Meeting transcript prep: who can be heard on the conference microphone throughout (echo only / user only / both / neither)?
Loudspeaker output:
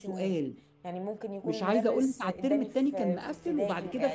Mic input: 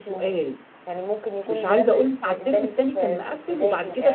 echo only